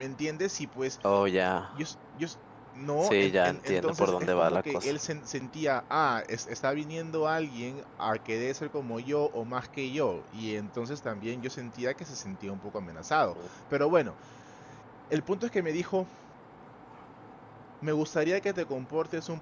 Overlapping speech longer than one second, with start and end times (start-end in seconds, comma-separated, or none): 3.0-5.0